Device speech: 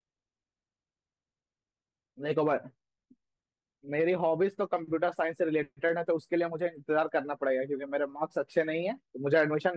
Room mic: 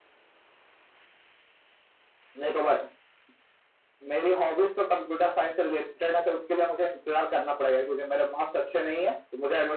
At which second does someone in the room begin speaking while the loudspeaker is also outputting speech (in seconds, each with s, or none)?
none